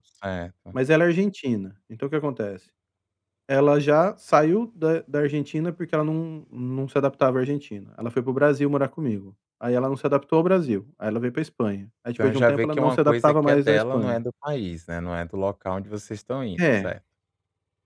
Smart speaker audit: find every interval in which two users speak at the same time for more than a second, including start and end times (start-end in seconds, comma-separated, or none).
12.2-14.2